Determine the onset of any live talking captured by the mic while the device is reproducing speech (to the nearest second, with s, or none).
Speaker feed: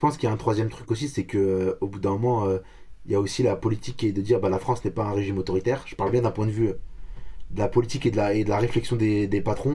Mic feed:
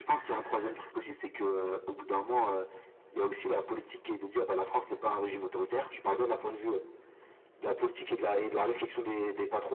none